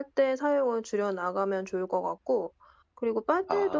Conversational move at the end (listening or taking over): listening